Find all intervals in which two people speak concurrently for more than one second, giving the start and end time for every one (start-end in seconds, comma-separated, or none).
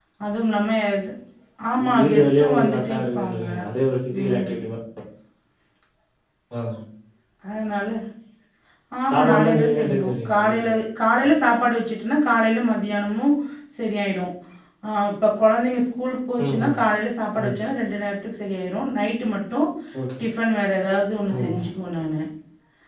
2.0-3.4, 9.1-10.7